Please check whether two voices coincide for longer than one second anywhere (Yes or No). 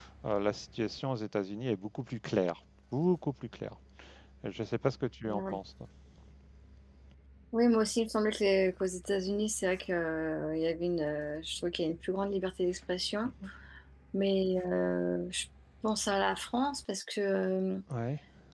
No